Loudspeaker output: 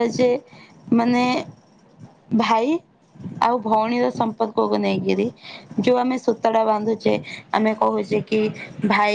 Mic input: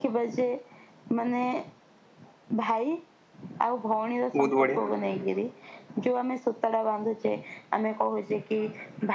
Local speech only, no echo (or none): ବହୁତ ବଢିଆ